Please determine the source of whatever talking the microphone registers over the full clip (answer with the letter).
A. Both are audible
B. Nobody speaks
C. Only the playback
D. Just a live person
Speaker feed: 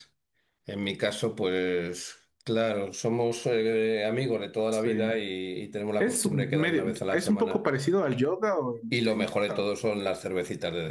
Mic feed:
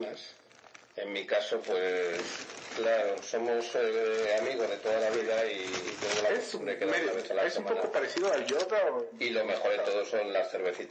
C